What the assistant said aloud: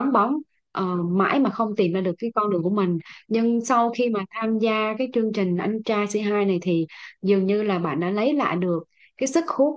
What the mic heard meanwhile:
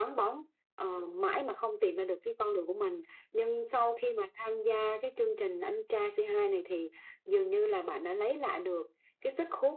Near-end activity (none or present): none